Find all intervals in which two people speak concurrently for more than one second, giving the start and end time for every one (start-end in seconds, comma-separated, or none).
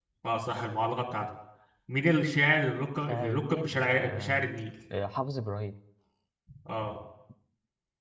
3.1-4.5